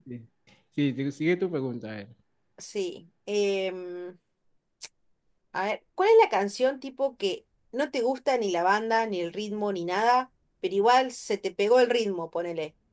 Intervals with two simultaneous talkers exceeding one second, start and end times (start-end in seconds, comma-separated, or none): none